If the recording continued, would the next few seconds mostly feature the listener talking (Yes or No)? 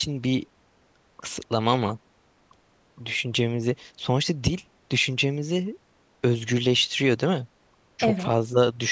No